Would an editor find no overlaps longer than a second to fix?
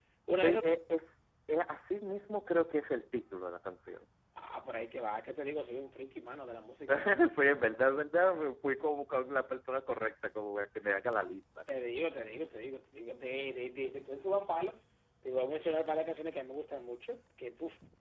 Yes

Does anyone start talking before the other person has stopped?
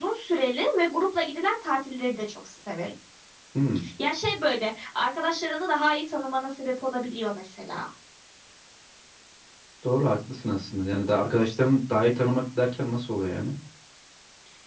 No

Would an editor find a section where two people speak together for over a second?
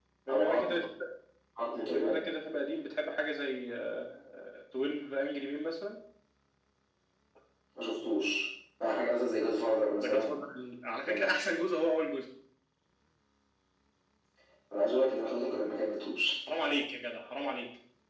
No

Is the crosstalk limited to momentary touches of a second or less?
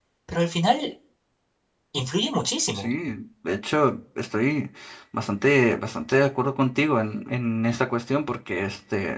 Yes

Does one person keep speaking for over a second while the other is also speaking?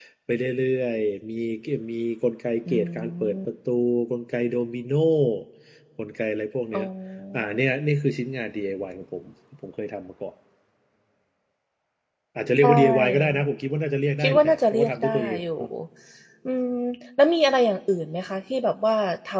Yes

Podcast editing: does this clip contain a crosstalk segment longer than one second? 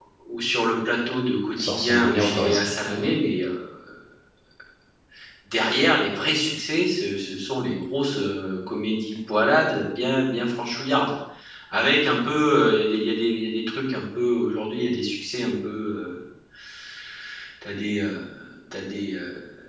Yes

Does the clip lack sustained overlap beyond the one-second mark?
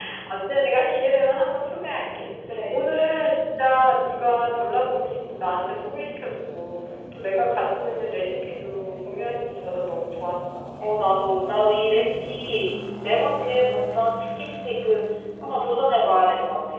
Yes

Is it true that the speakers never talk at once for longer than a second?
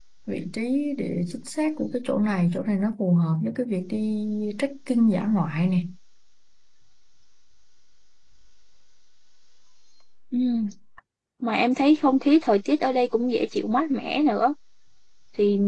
Yes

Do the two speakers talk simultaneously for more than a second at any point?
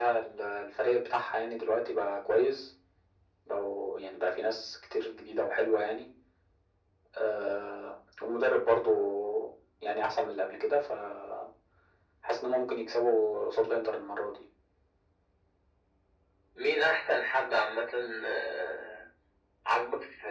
No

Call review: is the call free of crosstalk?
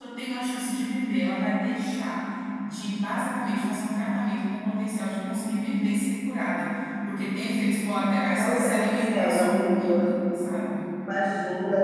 No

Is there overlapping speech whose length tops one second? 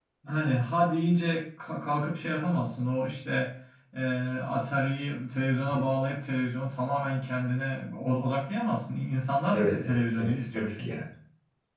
Yes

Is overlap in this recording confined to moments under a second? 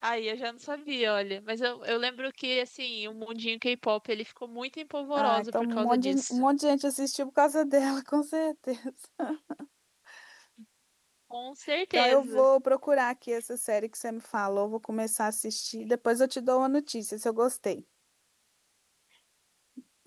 No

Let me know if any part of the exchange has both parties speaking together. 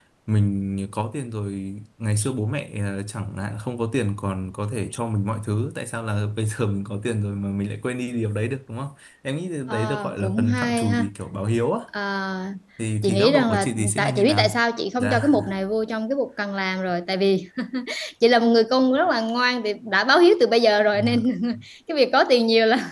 Yes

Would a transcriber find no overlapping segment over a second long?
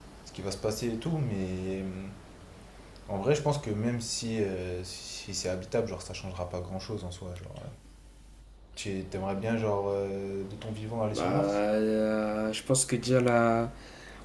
Yes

